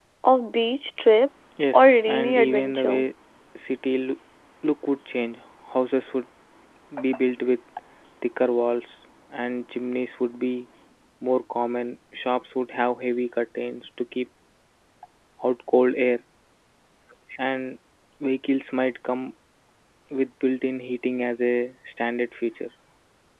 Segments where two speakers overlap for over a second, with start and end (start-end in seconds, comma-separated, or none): 1.7-3.0